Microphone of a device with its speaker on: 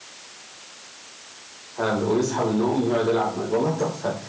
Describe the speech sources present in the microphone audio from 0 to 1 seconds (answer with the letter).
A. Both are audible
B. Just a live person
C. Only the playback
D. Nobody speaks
D